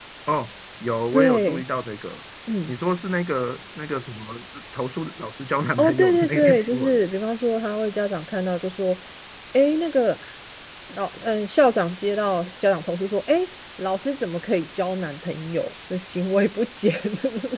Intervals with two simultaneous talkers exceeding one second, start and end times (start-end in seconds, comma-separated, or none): 5.8-7.0